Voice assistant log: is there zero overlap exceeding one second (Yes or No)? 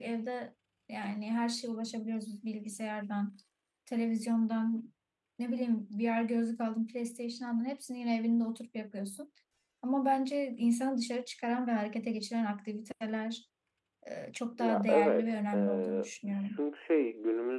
No